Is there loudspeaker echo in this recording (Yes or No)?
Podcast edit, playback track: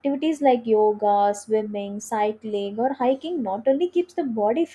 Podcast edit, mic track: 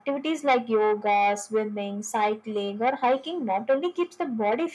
Yes